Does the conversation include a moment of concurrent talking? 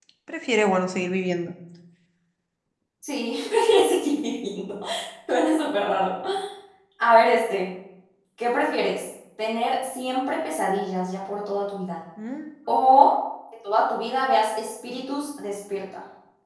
No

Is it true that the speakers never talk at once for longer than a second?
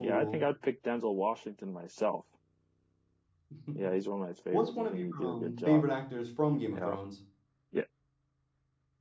No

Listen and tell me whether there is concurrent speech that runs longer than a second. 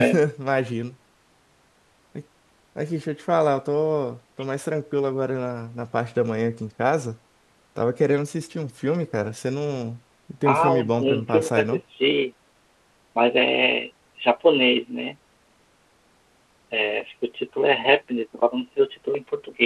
Yes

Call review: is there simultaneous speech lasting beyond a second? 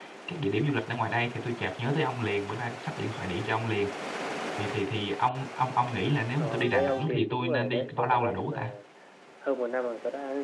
Yes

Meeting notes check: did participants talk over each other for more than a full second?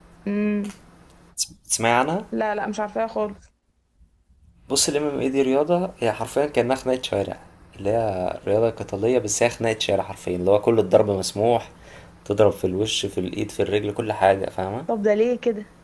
No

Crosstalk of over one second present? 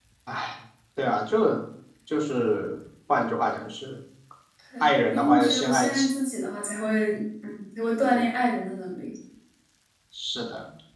Yes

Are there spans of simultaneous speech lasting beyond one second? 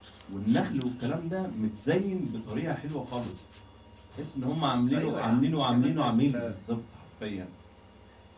Yes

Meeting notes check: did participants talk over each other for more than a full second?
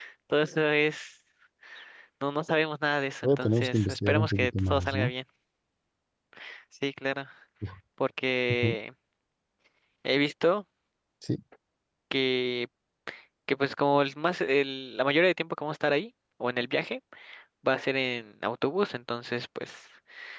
Yes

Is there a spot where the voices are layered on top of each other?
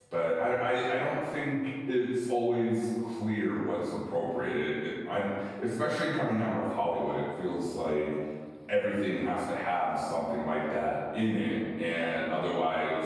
No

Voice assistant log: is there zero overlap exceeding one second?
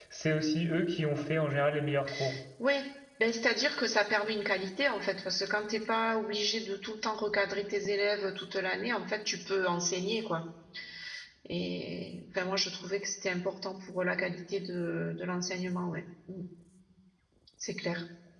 Yes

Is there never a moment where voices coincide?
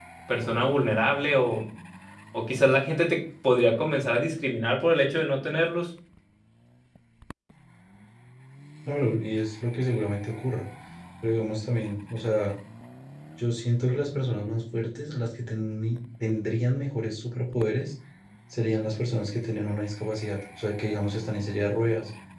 Yes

